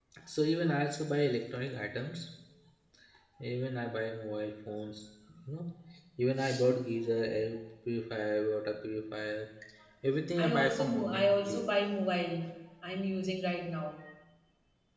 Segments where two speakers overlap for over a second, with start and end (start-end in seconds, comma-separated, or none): 10.4-11.6